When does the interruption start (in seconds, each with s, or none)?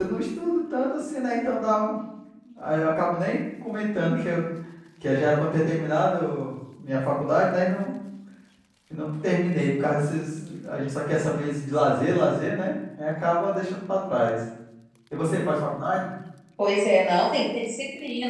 none